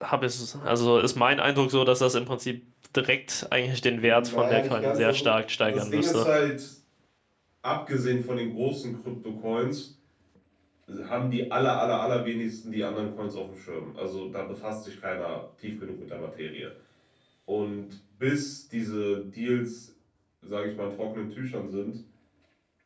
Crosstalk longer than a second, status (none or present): present